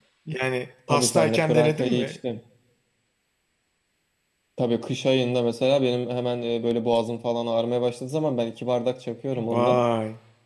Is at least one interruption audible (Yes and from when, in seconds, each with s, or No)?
Yes, from 0.9 s